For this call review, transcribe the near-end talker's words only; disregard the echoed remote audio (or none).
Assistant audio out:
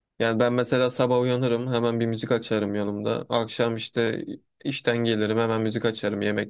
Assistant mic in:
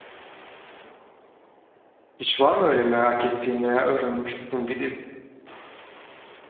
Hiç var mı öyle merak ettiğin veya öğrenmek istediğin bir dil?